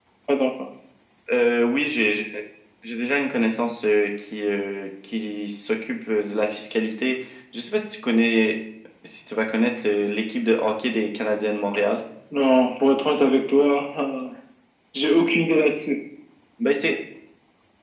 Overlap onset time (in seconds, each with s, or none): none